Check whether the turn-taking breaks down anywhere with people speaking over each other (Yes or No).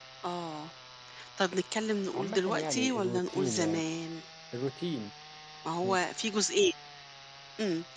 Yes